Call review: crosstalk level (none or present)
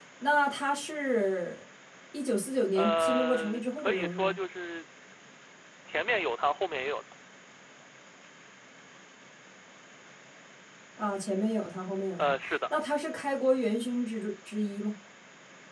present